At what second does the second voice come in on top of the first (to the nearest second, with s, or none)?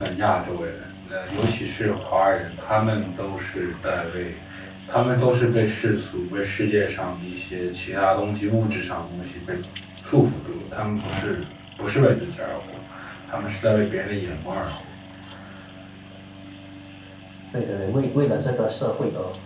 none